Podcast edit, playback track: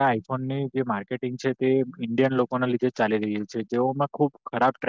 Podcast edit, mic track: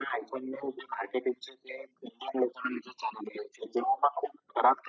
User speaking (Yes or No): No